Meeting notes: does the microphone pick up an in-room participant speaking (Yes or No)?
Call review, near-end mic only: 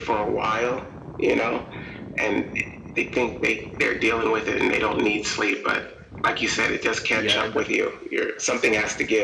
Yes